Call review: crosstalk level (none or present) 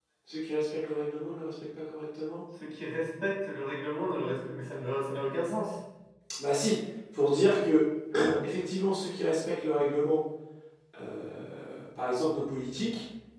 none